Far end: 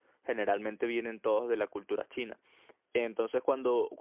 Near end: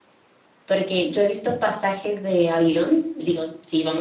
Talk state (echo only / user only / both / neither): user only